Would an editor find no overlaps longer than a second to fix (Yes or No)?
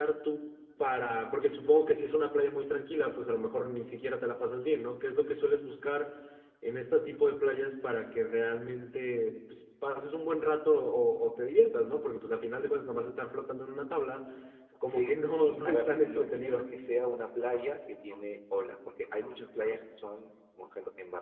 No